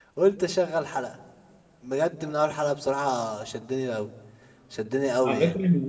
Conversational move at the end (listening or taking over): taking over